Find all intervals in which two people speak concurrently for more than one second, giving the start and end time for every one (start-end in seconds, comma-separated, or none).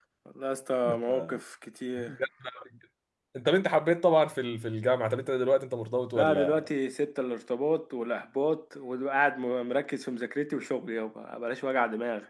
none